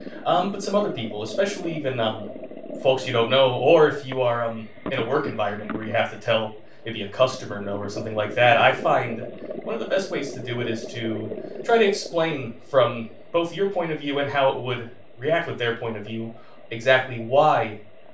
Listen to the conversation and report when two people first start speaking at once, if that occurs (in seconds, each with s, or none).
none